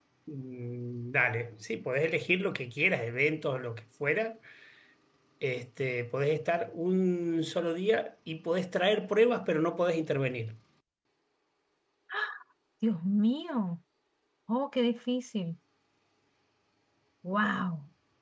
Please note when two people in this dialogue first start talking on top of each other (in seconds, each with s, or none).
none